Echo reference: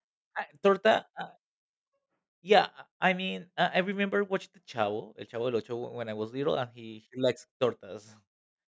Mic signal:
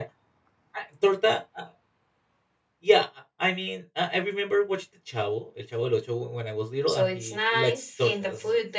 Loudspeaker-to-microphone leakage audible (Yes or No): Yes